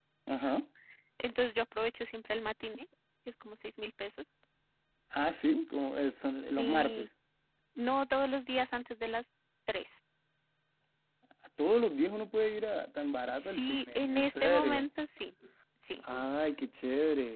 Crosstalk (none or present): present